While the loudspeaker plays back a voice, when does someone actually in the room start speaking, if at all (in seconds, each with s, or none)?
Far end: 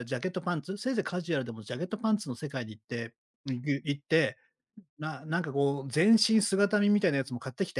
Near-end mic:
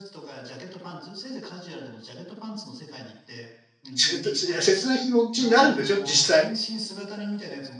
3.9 s